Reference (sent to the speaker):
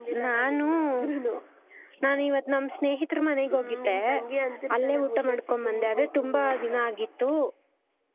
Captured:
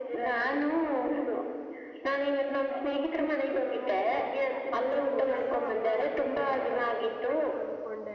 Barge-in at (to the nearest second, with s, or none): 5 s